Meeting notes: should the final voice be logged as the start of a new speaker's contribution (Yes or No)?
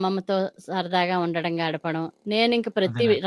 No